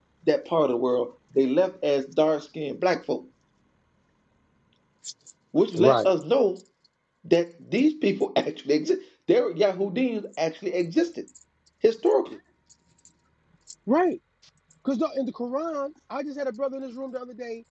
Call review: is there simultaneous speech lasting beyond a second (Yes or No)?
No